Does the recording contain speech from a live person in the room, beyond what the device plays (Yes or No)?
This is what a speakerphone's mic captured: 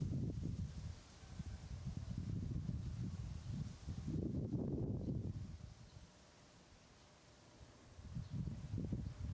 No